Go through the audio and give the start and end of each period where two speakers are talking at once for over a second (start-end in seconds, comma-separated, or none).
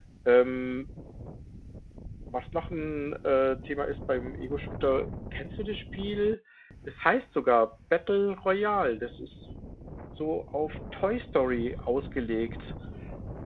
none